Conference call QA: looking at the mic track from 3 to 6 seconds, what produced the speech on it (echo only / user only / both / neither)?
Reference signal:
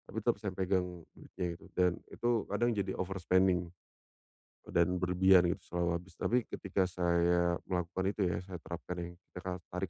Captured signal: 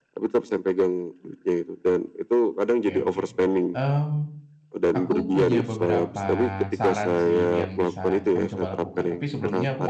both